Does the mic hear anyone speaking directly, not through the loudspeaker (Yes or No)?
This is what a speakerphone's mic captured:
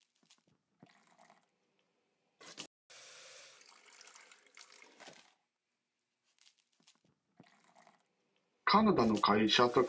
Yes